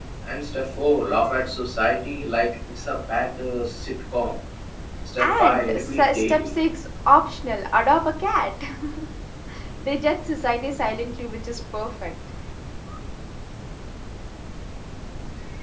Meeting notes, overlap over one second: present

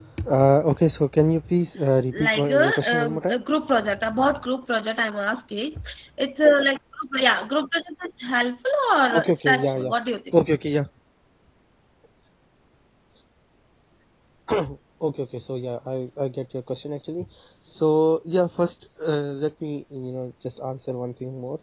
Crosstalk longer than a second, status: present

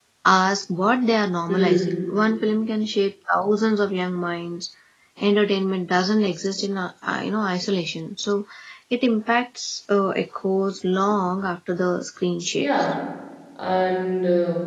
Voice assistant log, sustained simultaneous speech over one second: none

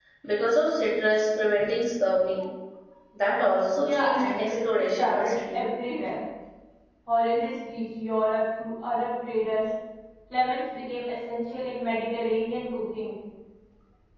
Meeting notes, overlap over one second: present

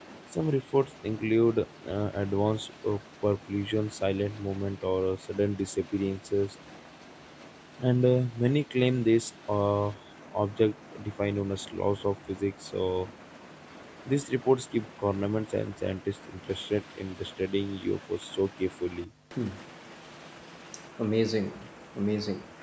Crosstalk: none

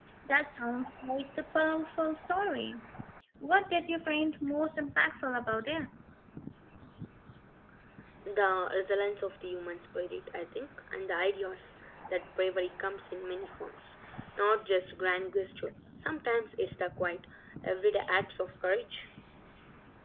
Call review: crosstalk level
none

